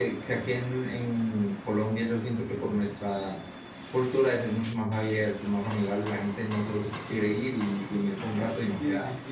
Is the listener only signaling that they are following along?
No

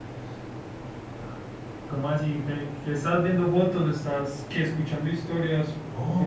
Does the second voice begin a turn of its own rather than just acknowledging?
Yes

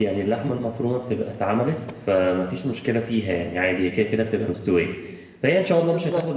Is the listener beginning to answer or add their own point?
No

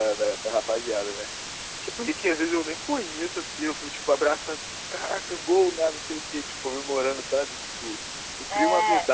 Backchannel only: Yes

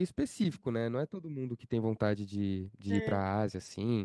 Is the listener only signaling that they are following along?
Yes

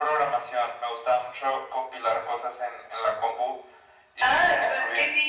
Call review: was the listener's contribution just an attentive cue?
No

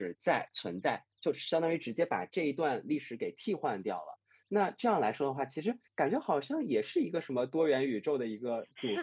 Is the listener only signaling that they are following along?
No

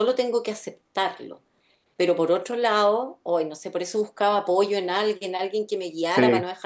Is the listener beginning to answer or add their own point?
No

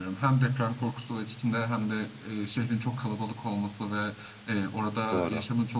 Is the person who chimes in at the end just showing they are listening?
Yes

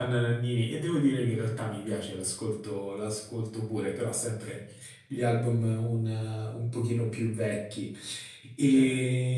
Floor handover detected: No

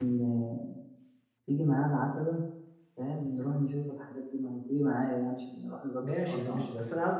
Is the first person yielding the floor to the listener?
Yes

